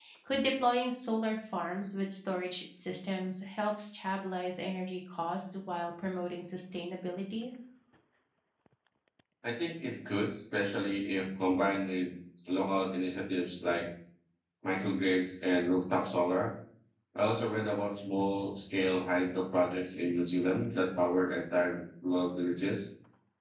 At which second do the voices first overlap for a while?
none

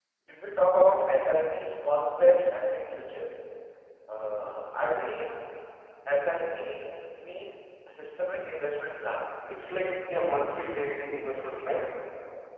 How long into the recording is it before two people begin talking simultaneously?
none

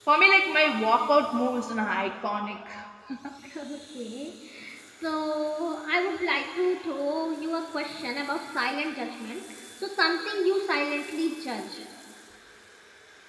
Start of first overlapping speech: none

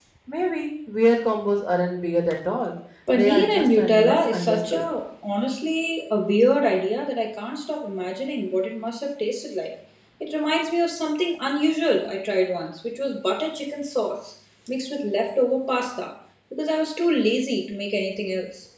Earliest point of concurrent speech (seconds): 3 s

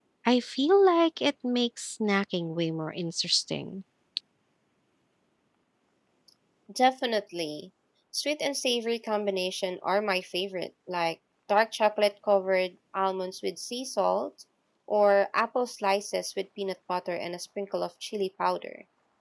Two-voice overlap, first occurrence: none

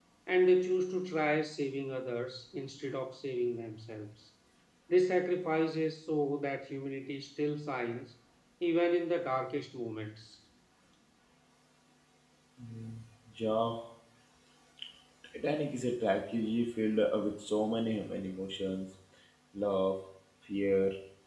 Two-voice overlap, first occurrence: none

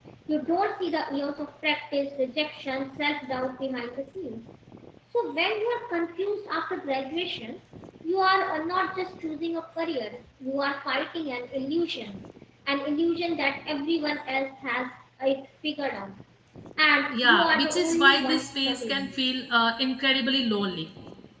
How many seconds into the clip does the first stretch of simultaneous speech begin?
17 s

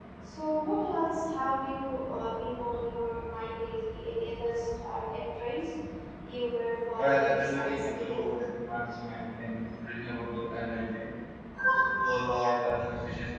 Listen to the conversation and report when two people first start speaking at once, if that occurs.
7 s

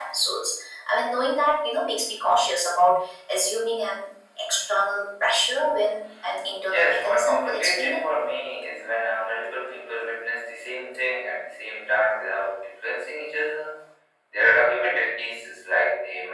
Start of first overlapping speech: 7 s

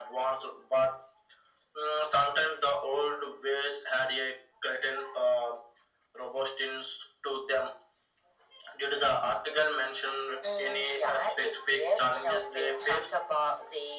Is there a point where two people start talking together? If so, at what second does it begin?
10 s

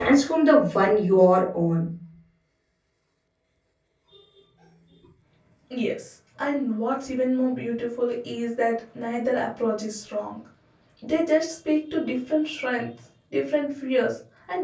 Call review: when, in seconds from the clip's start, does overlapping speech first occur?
none

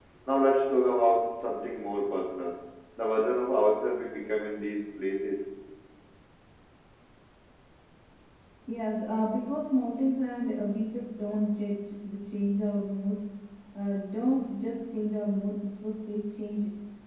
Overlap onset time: none

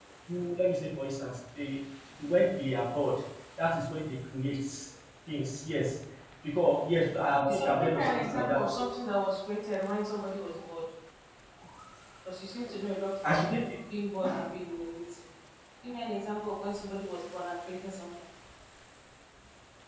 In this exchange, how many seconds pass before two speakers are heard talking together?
7 s

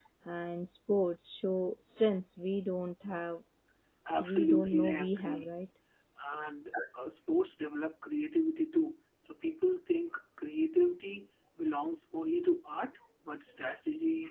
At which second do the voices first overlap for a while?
4 s

